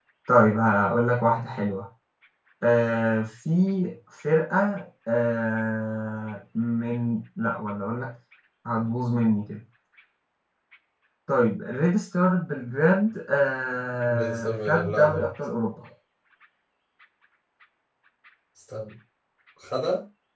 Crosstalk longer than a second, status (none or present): present